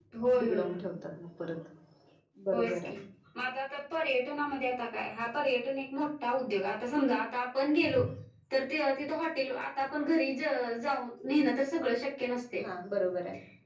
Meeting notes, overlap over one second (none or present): none